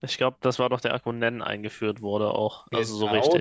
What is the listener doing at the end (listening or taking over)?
taking over